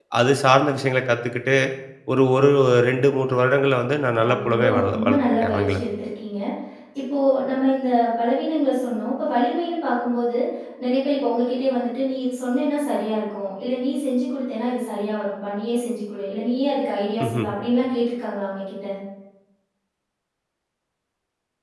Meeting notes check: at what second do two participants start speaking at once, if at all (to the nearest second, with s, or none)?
4 s